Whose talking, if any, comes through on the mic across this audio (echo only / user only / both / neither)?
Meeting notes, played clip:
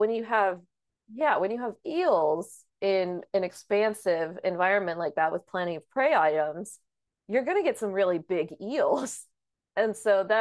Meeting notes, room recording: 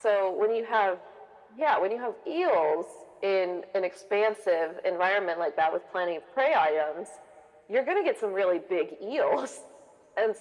echo only